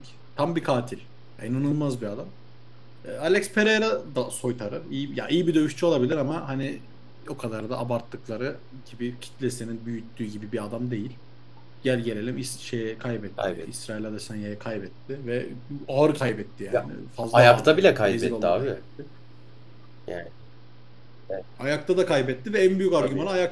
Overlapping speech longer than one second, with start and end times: 17.4-18.7

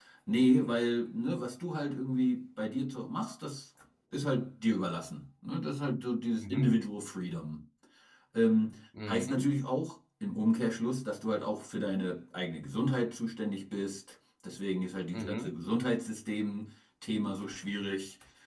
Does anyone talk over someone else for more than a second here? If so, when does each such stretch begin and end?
none

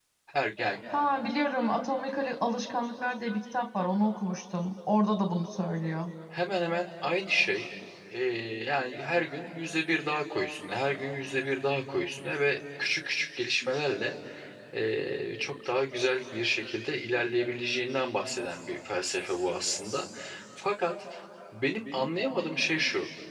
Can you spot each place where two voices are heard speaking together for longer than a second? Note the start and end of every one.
none

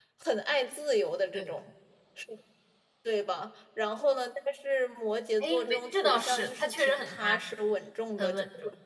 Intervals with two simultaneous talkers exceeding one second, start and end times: 5.4-7.5

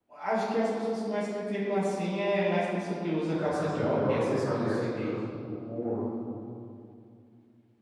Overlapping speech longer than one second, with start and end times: 3.3-5.1

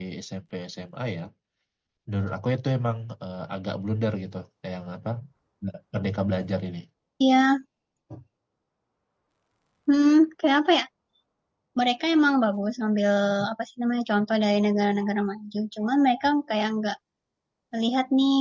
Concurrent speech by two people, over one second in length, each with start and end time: none

